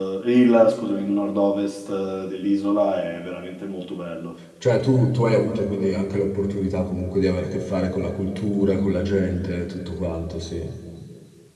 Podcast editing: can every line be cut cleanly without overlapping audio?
Yes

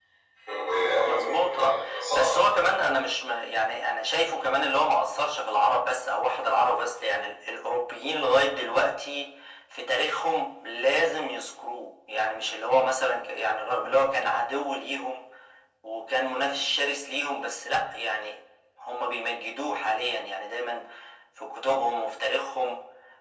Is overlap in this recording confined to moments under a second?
No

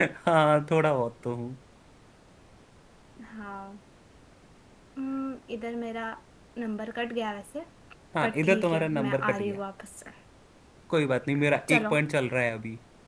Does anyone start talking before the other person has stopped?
Yes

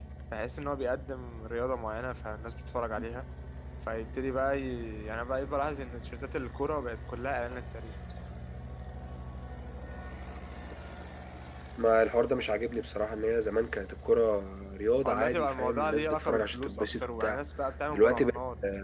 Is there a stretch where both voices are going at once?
Yes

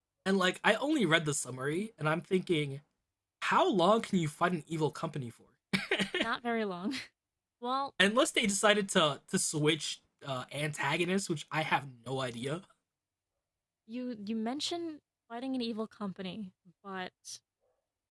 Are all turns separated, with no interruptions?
Yes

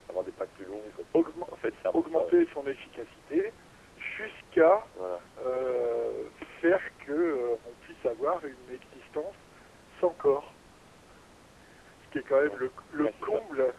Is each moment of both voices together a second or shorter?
Yes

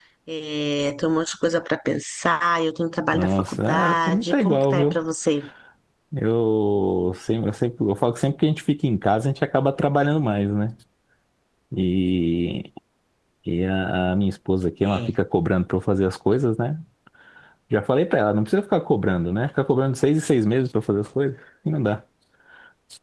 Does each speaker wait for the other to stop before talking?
No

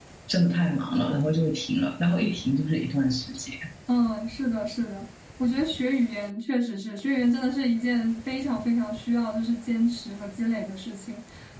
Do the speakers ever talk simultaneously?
No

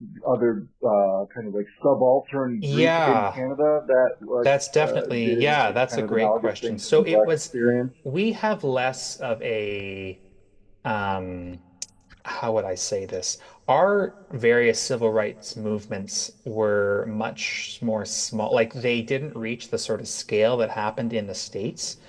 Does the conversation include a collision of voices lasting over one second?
Yes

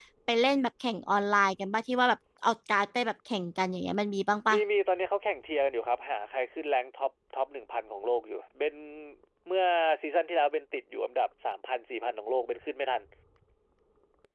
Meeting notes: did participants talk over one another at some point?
No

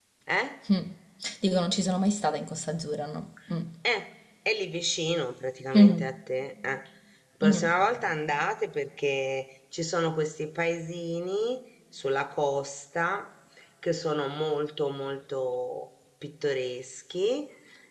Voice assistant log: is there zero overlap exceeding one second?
Yes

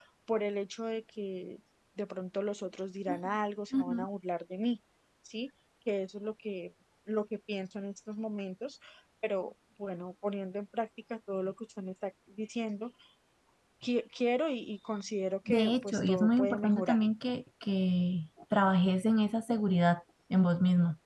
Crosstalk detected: Yes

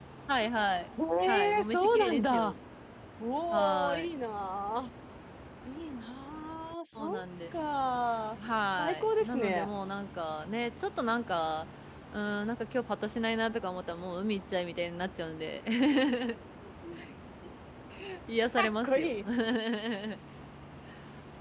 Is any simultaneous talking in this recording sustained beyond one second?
Yes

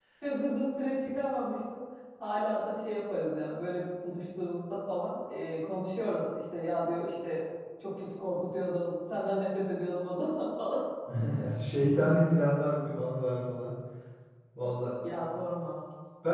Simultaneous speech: No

